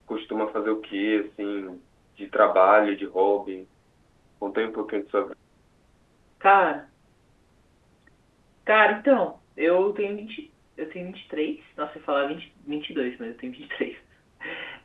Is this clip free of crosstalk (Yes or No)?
Yes